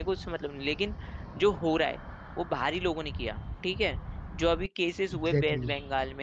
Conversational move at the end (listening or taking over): listening